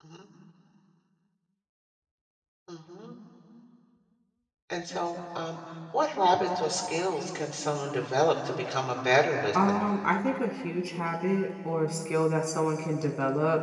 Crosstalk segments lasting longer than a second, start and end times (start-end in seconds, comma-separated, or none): none